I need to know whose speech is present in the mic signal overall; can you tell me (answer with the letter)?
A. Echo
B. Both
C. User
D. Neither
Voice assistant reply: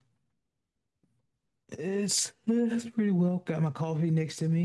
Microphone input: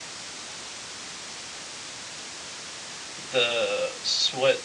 C